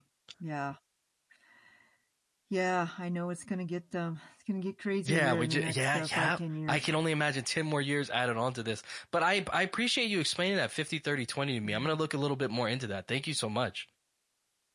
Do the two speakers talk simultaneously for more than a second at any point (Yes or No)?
Yes